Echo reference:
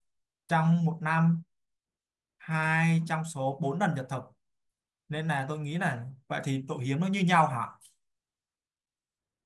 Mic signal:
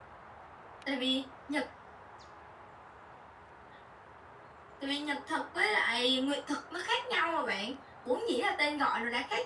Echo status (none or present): none